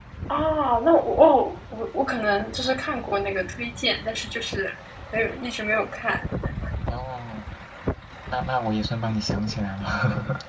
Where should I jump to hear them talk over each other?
none

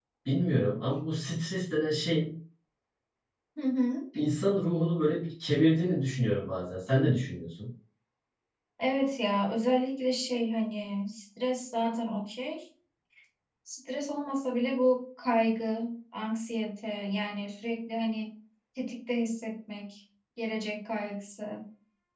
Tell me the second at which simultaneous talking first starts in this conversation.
none

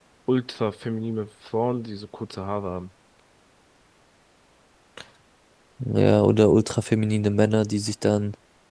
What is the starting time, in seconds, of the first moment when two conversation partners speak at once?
none

